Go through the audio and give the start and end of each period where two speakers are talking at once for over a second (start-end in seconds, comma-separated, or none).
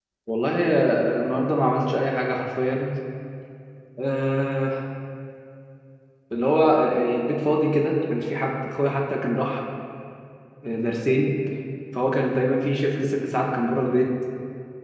none